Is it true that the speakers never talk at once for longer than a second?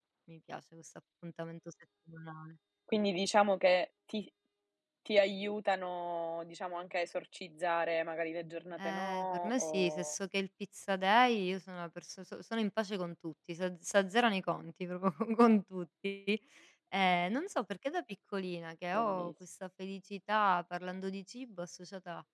No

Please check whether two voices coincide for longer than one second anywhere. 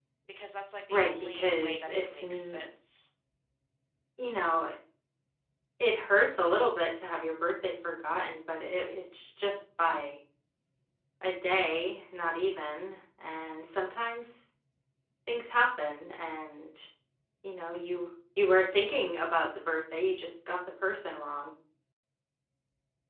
Yes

